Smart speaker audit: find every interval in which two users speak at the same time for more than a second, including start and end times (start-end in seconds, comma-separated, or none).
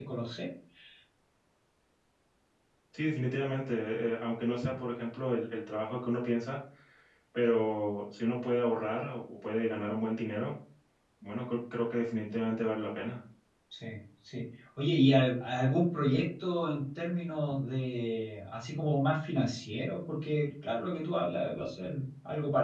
none